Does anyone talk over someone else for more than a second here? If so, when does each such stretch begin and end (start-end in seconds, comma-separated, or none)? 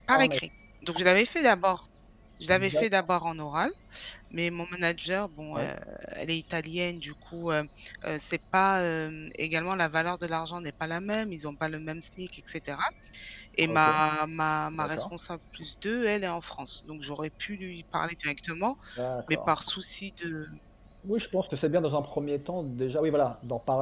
none